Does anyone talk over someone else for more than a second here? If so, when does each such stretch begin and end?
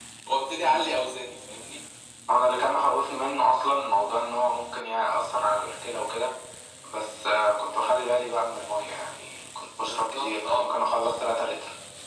9.8-11.0

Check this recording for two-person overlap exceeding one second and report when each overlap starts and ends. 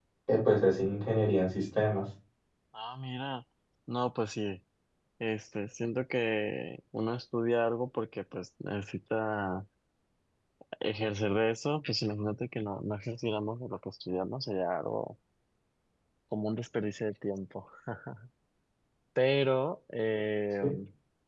none

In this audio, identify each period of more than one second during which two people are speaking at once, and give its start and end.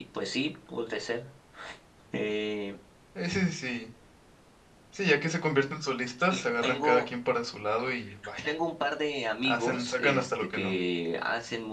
9.4-10.7

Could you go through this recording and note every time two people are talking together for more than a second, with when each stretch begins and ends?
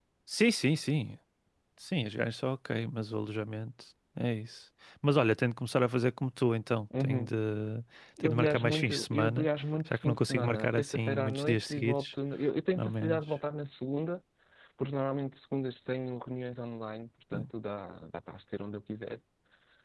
8.2-9.5, 9.9-12.1

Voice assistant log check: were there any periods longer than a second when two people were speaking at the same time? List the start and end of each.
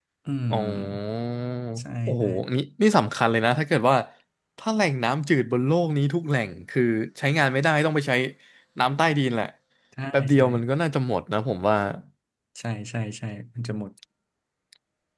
none

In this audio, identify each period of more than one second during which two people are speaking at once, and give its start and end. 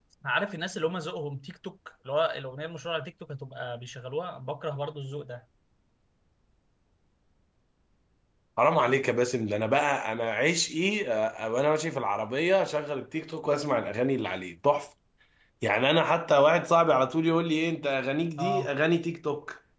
none

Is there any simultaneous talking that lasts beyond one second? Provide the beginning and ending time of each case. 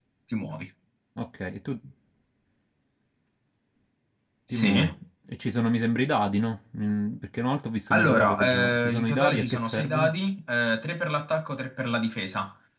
7.9-10.1

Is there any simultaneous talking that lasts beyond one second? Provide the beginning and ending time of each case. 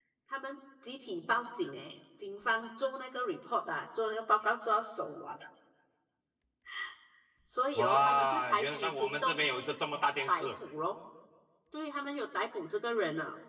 7.7-9.6

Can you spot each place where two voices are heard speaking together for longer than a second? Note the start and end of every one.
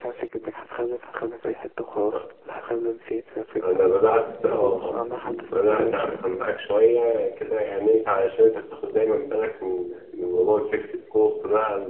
4.4-6.2

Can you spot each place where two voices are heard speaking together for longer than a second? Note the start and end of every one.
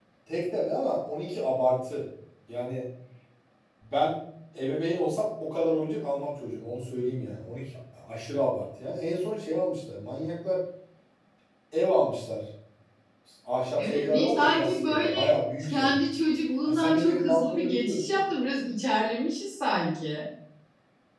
13.8-15.3, 16.6-18.2

